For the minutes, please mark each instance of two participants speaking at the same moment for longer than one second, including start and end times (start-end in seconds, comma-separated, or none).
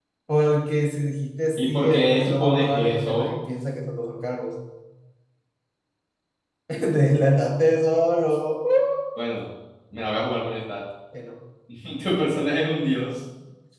1.6-3.3